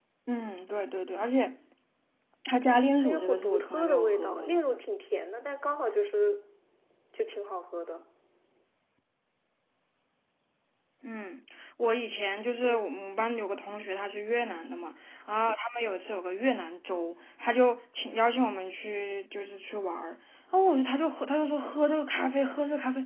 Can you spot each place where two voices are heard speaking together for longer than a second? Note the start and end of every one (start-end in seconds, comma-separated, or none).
3.0-4.6